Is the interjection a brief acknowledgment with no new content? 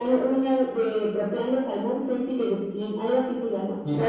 No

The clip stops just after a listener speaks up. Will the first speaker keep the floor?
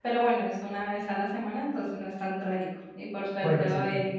Yes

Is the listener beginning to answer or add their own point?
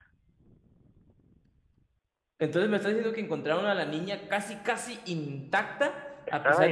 No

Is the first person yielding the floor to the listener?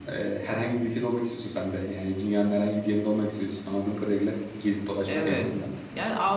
Yes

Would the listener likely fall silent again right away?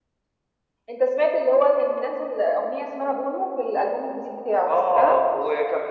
No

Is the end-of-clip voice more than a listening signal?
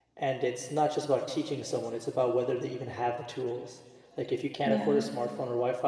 No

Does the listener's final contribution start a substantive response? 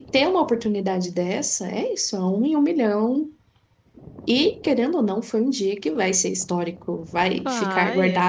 No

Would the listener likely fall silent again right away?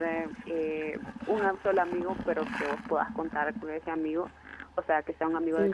Yes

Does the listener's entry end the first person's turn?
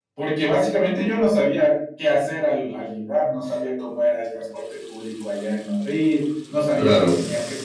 No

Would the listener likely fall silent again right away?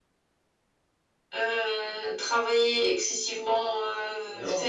Yes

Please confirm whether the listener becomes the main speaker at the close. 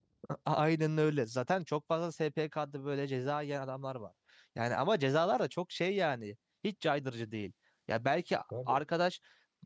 No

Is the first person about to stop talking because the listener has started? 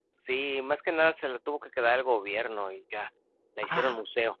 Yes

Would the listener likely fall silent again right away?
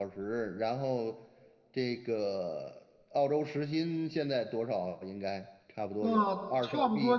No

